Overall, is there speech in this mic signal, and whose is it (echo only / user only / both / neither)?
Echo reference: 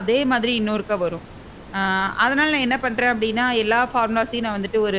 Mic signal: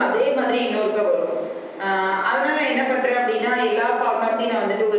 echo only